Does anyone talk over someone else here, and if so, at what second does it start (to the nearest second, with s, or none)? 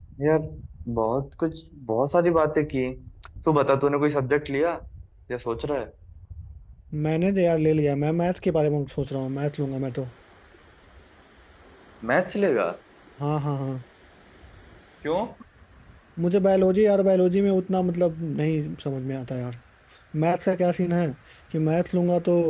none